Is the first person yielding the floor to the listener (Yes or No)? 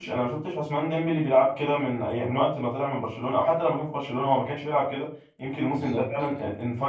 No